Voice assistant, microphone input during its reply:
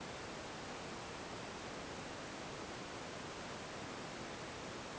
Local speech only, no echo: none

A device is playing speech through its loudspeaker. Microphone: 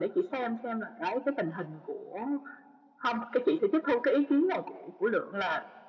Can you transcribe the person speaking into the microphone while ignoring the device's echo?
none

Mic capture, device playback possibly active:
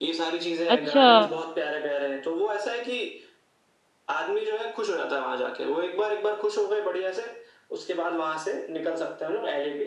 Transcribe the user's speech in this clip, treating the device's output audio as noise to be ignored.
अच्छा

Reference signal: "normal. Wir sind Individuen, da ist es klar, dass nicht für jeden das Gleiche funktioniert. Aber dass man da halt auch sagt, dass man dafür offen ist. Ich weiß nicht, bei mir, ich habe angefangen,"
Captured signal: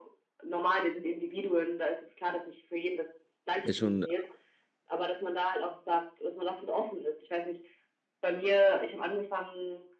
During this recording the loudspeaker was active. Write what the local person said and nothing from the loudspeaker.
Ist schon,

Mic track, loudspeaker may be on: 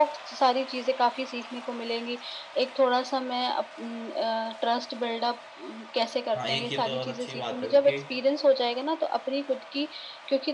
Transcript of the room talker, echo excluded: हाँ एक ये तो बहुत अच्छी बात है क्योंकि

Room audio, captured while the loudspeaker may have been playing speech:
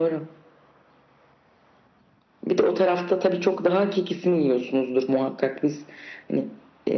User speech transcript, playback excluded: none

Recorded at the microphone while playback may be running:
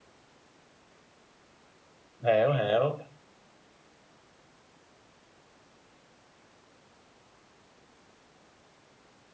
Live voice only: hiểu hiểu

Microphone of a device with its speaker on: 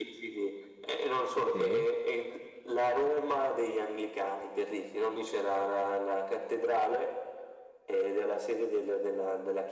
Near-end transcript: sì,

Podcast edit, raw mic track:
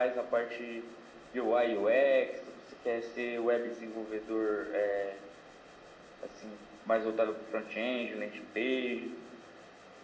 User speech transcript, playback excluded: none

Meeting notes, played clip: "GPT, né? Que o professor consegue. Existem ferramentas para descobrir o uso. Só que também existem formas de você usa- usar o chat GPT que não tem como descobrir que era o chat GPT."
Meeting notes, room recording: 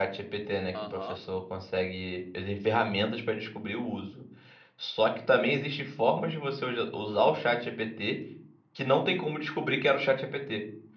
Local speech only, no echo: Aham.

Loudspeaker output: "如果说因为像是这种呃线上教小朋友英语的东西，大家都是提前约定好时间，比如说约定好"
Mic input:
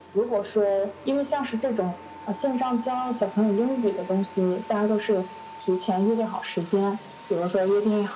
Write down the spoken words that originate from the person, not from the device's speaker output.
none

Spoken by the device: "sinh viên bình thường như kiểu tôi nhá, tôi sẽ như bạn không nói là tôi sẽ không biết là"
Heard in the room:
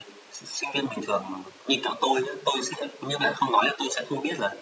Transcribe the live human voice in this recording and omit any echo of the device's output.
none

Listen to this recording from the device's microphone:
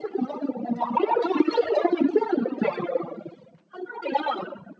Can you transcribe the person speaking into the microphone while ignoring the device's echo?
none

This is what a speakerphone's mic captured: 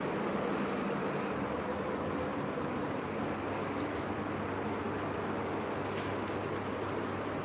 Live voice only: none

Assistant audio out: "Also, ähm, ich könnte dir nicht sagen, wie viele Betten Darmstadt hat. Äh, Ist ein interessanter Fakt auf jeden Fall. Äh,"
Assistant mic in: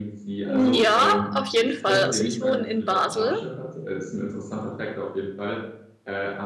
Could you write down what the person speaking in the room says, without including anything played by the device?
Ja, auf jeden Fall. Also ich wohne in Basel

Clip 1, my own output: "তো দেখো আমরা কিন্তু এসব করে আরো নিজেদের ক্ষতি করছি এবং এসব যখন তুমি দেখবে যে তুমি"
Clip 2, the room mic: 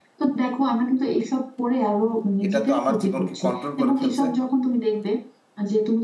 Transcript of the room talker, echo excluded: এটা তো আমার জীবনকে কন্ট্রোল করে ফেলছে

